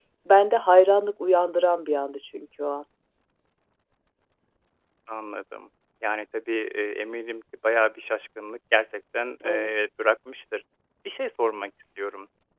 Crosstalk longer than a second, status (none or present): none